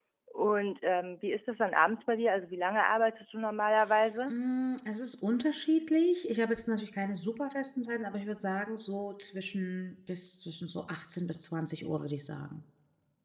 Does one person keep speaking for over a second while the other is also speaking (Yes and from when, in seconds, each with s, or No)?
No